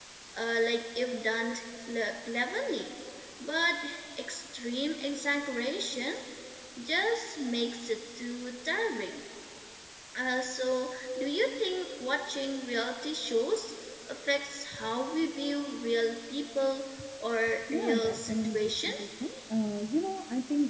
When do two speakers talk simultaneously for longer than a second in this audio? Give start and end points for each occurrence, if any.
17.7-18.9

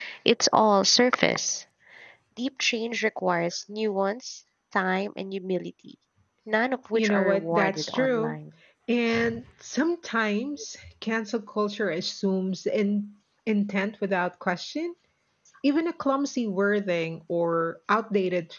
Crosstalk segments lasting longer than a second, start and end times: 6.9-8.4

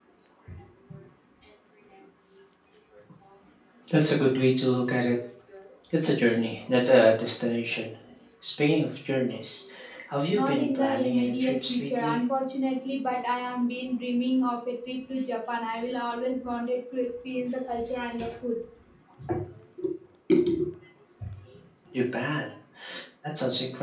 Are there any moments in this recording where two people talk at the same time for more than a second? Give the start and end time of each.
10.3-12.2

